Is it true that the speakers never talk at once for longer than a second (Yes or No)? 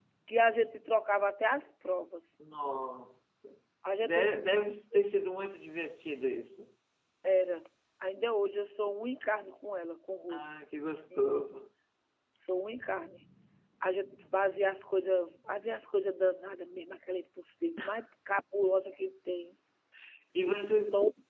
Yes